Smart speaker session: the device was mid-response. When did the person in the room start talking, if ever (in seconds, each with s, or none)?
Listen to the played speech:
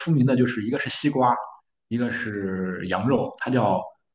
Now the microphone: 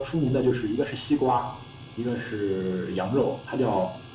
none